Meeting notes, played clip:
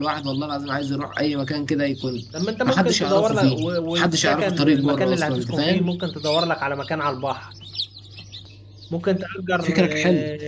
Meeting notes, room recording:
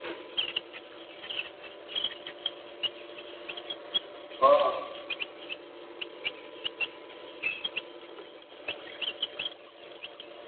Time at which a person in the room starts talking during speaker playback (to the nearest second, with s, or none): 4 s